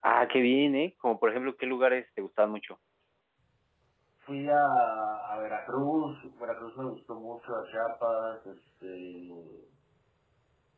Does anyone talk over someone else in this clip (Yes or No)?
No